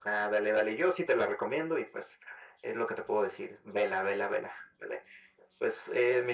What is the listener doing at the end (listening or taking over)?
listening